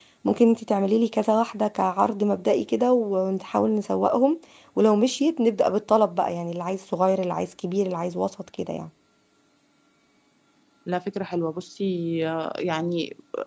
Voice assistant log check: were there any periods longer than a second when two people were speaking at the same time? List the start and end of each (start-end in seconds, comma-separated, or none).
none